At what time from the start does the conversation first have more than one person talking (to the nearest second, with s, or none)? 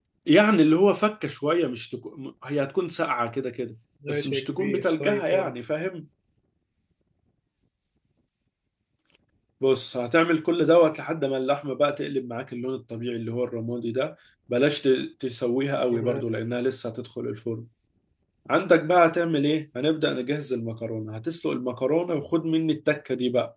4 s